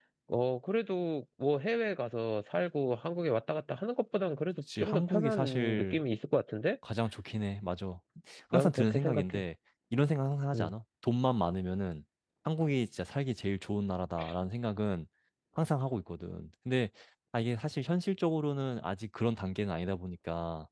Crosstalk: present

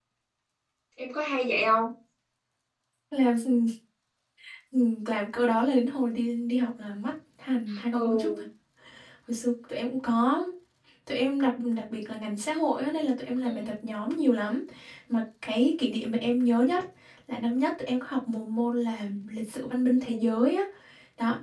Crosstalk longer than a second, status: none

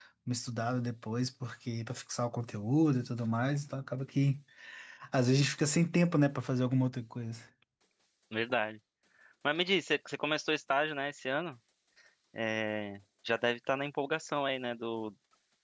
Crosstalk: none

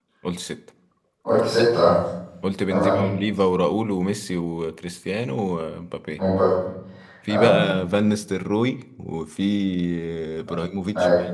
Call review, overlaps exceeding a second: none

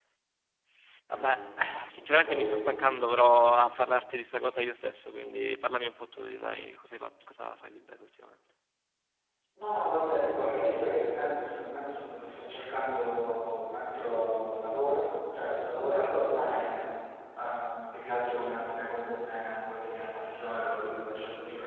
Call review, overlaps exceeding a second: none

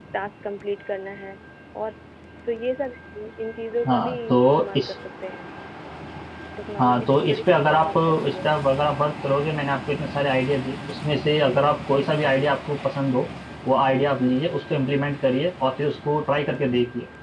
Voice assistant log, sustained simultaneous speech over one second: present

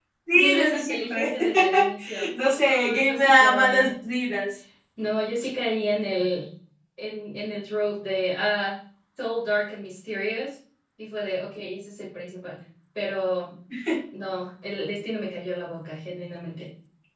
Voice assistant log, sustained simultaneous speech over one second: present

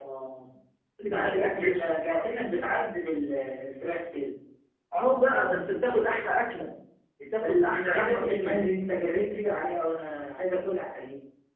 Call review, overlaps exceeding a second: present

